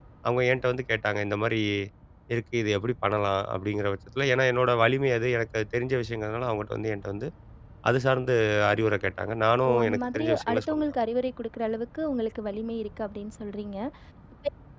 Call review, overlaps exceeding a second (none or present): present